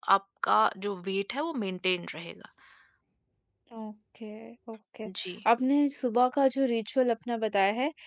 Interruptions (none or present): none